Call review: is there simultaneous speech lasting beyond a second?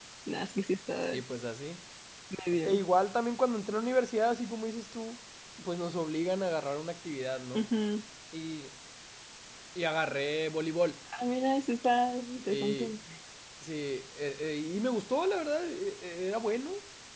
No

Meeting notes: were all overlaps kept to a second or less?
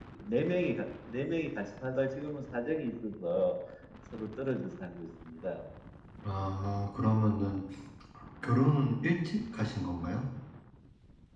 Yes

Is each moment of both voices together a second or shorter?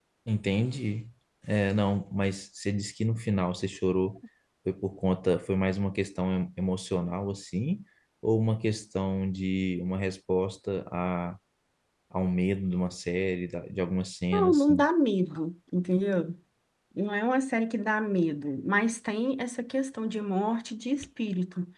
Yes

